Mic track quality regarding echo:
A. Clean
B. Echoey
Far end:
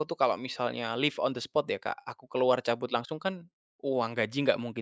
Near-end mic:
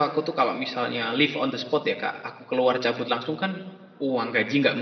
B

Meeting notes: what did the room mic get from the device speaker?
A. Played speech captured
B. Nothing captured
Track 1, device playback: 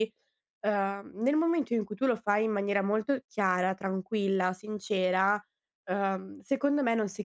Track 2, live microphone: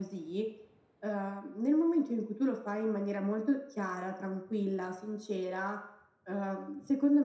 A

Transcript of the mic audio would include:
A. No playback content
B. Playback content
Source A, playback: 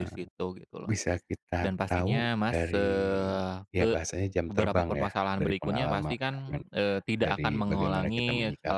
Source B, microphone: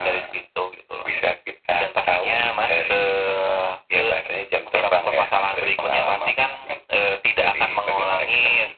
B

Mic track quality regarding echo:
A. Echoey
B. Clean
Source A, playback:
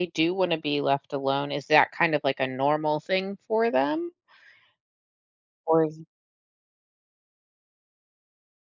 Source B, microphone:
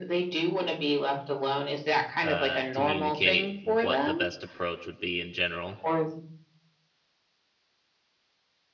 A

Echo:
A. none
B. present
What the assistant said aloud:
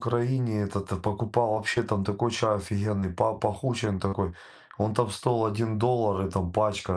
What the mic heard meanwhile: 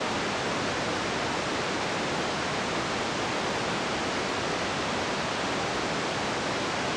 A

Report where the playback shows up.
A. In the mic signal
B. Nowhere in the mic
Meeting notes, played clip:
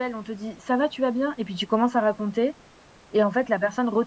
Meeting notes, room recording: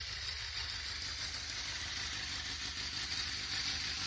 B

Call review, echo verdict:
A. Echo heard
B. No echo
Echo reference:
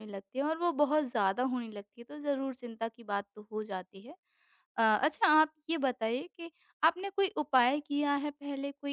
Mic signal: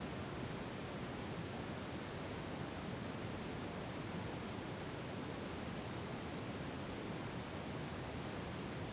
B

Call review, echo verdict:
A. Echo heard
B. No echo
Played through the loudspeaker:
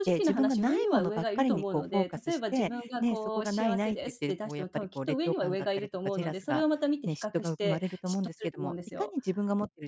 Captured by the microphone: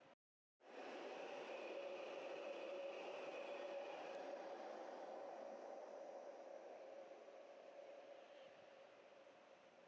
B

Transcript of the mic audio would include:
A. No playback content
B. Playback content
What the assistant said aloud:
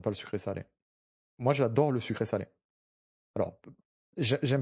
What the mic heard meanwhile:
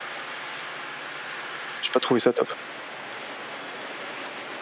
A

